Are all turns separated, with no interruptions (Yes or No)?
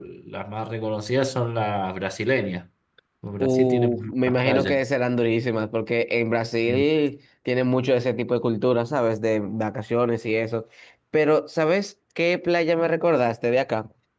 No